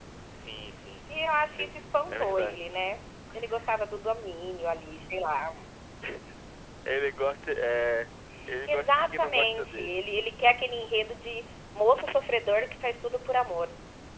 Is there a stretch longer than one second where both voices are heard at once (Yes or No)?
Yes